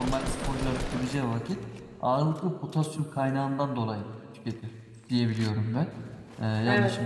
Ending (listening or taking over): taking over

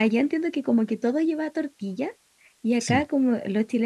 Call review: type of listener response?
listening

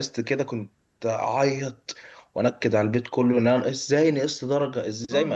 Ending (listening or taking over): taking over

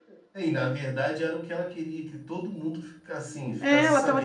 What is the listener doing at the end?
taking over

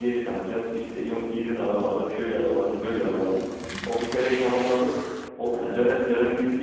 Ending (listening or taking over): listening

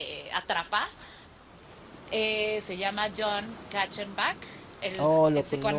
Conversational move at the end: taking over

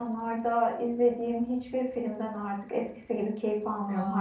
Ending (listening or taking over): taking over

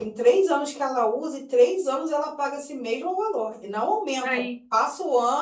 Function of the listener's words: listening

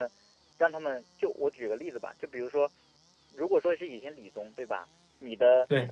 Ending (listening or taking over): listening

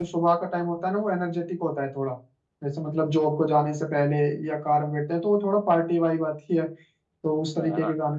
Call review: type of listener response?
taking over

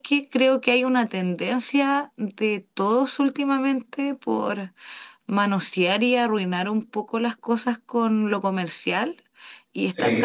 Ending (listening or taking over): listening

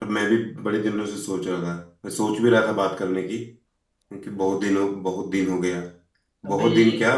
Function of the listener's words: listening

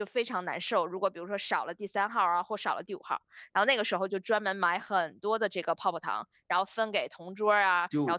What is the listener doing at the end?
listening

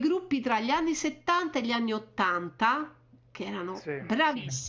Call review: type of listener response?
listening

